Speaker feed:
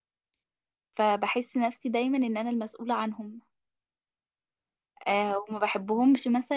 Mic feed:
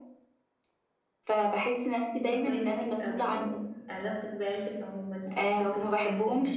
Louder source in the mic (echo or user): echo